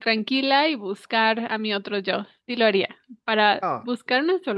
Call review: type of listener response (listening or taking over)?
listening